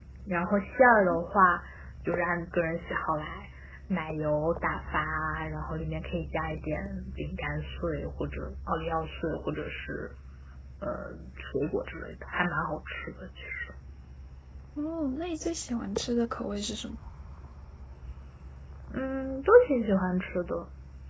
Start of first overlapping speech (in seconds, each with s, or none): none